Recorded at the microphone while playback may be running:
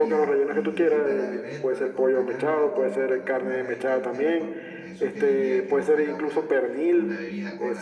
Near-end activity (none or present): present